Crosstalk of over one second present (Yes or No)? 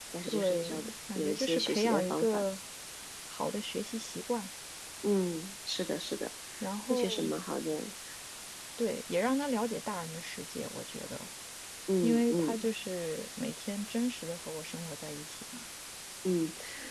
Yes